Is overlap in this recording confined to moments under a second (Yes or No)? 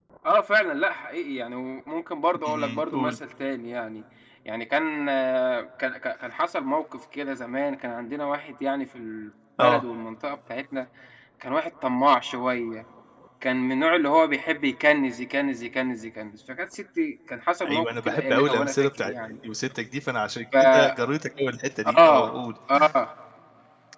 No